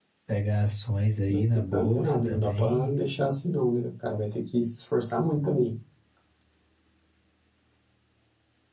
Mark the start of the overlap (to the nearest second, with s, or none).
1 s